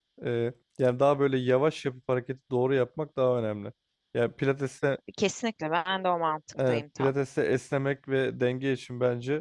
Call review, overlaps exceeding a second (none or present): none